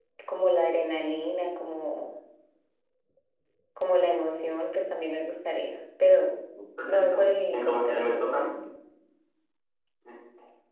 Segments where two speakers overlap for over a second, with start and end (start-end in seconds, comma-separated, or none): 6.8-8.4